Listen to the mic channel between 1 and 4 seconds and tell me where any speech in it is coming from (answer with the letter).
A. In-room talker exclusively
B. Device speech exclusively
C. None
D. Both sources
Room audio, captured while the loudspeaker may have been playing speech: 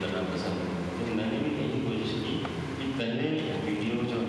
B